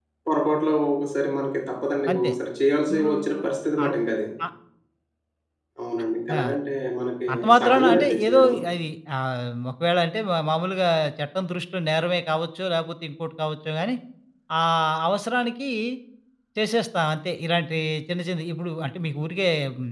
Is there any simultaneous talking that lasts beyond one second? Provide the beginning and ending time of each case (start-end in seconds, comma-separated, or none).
7.3-8.5